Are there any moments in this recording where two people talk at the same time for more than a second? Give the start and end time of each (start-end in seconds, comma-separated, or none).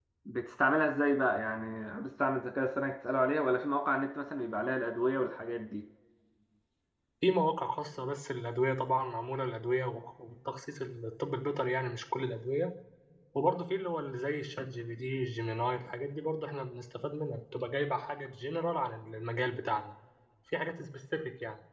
none